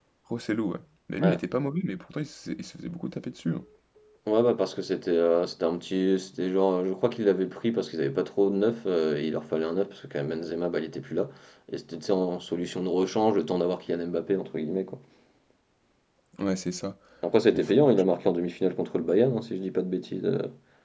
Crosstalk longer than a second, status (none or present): none